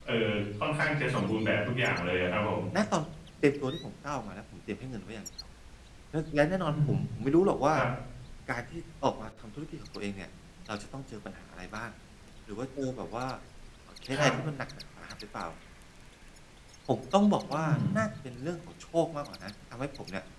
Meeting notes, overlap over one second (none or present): none